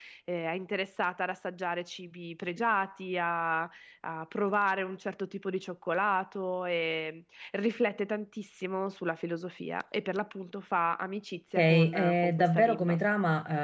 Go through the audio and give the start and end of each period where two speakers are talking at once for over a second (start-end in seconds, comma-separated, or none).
11.6-13.0